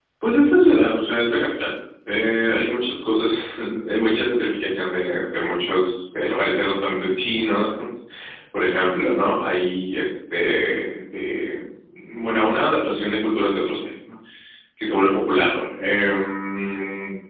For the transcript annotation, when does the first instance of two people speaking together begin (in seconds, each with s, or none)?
none